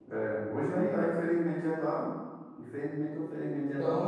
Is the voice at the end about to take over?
Yes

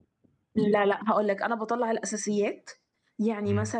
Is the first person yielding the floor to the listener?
No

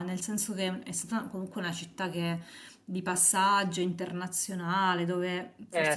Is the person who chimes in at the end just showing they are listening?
Yes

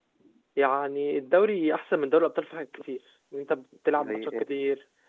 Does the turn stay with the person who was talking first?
Yes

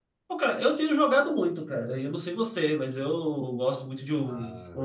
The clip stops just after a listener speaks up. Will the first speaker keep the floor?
Yes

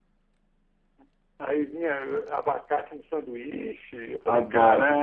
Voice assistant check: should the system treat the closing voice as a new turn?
Yes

